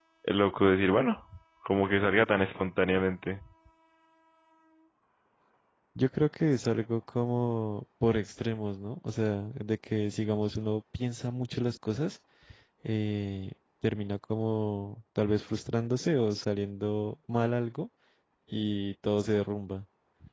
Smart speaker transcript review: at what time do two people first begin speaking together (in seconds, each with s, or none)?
none